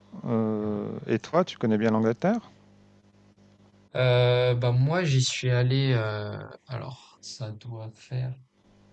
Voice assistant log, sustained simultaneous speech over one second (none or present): none